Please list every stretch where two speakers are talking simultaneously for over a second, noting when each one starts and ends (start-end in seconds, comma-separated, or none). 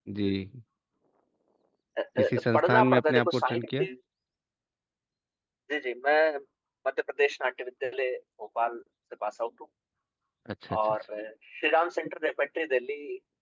2.2-3.8